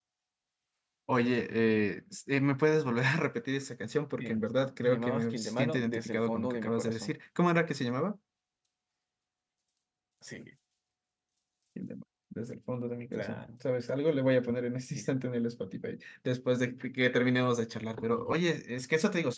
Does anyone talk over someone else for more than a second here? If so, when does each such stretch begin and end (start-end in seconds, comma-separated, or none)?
4.8-7.1